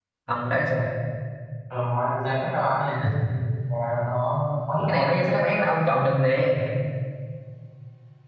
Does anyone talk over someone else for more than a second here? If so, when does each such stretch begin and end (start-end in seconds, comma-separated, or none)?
none